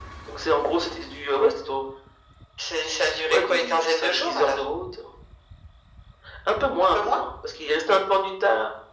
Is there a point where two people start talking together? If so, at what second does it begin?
3.0 s

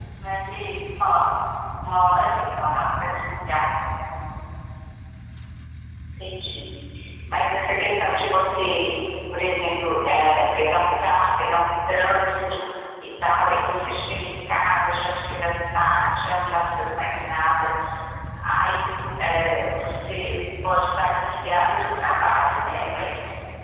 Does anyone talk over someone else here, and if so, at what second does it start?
none

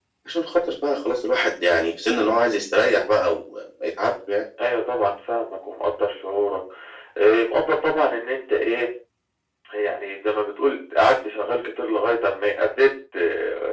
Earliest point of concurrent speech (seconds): none

